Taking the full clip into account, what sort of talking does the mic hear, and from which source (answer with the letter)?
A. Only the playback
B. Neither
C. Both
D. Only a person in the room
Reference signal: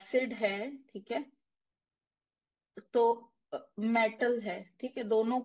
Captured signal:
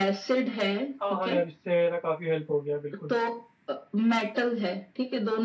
C